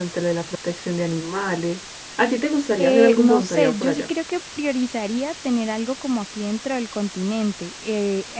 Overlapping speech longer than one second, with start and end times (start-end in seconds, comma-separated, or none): 2.8-4.0